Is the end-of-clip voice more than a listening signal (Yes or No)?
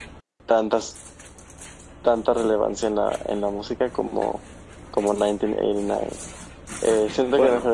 No